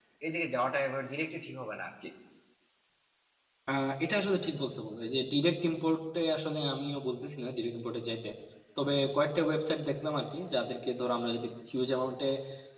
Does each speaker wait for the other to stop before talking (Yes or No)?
Yes